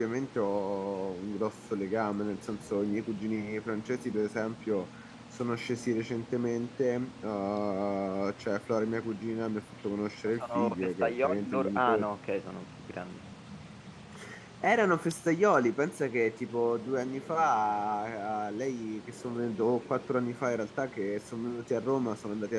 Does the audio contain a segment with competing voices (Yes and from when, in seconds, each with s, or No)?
Yes, from 10.4 s